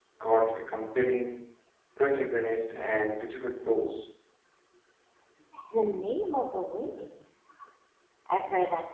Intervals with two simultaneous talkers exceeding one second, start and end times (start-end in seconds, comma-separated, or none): none